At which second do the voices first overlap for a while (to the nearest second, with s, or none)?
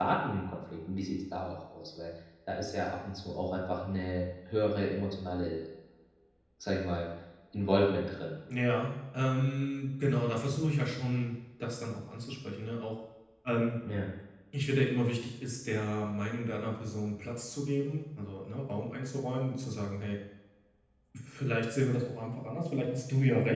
none